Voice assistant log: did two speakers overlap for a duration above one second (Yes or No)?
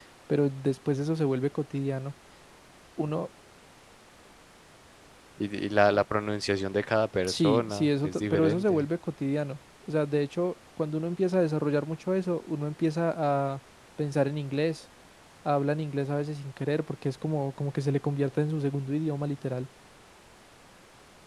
Yes